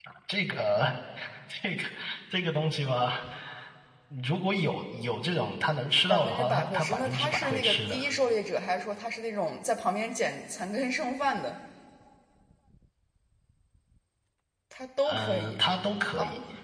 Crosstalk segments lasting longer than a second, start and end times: 6.1-8.1

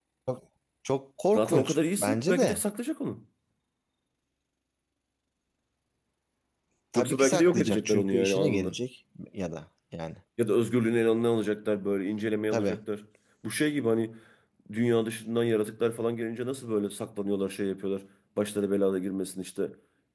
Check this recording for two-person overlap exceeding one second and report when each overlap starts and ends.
1.3-2.6, 7.0-8.7

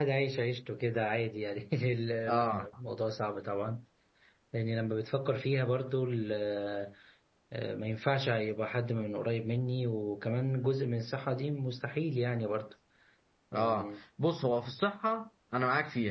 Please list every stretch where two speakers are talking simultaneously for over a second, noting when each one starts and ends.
none

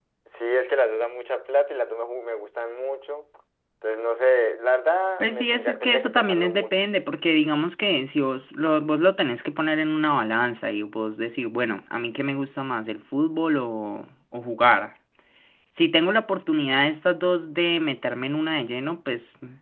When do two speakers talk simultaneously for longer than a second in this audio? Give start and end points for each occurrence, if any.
5.2-6.8

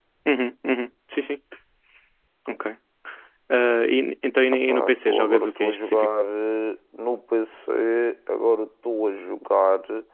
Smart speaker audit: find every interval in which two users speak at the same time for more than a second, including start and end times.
4.5-6.1

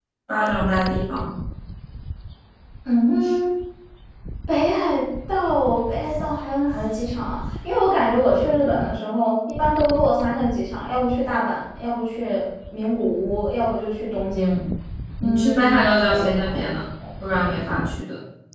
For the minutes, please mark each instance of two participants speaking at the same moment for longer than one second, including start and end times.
15.2-16.7

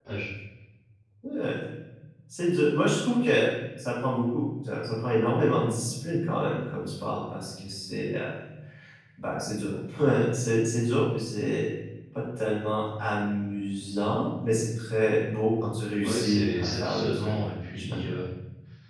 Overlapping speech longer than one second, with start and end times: 16.0-17.3

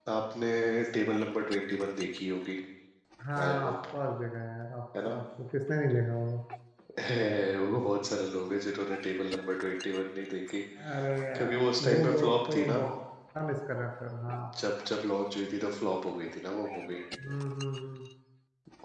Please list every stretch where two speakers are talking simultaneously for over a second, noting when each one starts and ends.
11.3-12.8

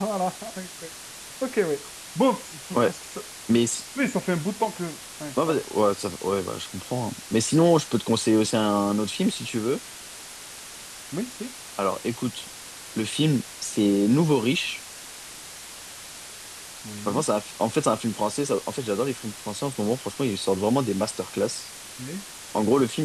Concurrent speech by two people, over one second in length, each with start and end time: none

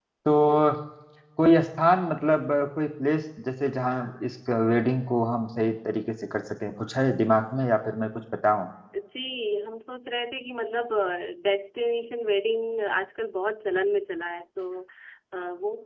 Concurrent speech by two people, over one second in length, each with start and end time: none

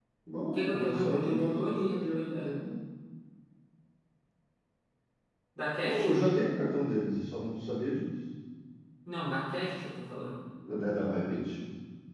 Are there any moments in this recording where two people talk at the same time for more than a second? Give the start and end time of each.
0.5-2.5

